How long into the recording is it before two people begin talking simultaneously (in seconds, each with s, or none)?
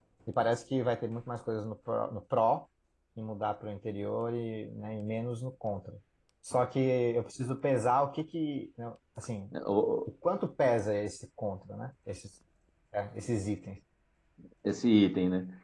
none